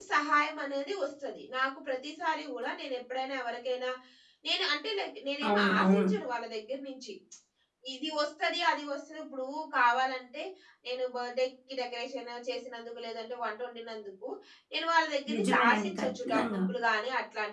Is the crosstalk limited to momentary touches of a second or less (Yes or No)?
No